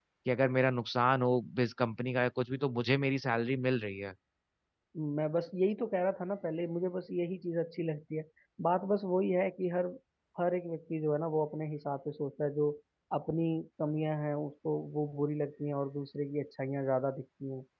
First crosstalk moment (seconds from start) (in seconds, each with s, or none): none